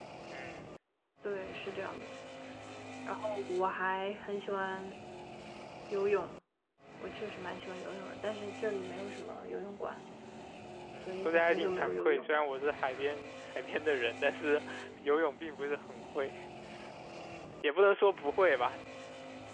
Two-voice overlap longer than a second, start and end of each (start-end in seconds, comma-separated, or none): 11.1-12.4